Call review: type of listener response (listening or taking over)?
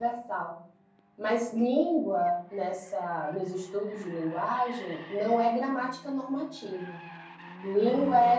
listening